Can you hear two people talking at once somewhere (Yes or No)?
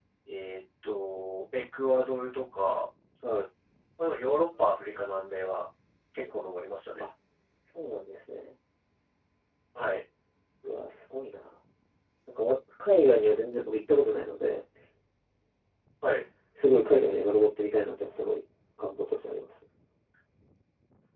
No